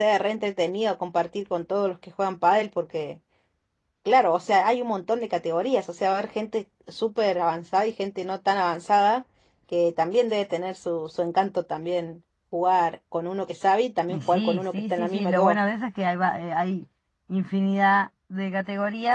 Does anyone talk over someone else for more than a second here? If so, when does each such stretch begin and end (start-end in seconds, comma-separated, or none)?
14.1-15.6